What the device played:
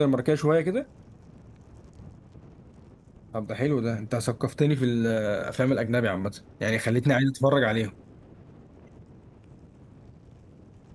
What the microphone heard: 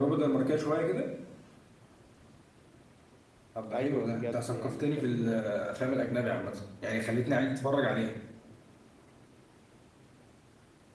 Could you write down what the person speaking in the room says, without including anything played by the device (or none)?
ايوه بجد يعني كان